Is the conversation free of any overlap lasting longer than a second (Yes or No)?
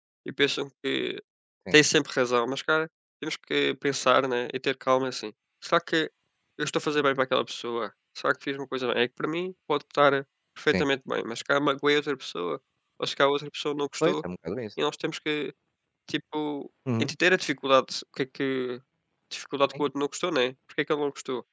Yes